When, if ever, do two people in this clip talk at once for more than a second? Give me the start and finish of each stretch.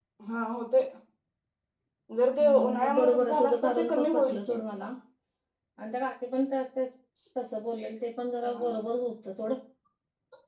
2.4-4.5

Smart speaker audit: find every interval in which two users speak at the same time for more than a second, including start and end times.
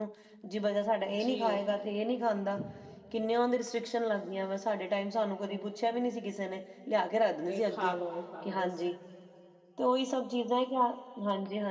none

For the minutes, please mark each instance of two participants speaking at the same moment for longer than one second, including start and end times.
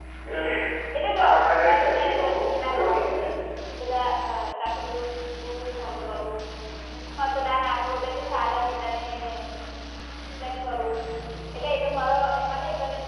1.7-3.2

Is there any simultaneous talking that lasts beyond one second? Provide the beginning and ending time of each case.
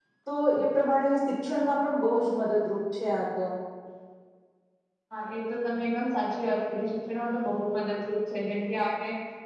none

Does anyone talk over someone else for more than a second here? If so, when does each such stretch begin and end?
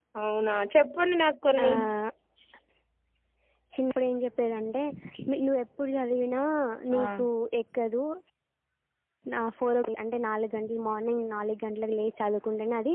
none

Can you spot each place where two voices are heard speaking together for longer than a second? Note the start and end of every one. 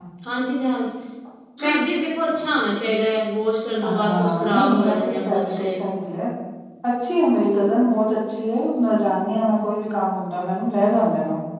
3.9-5.6

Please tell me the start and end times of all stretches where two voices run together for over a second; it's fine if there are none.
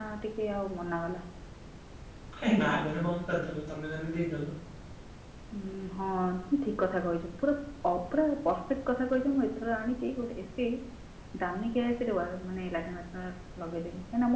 none

